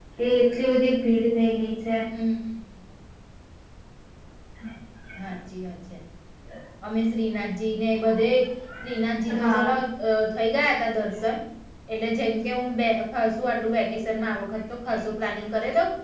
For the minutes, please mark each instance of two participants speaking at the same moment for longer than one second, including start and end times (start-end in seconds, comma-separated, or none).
none